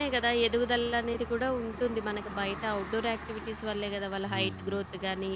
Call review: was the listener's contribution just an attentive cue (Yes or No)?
No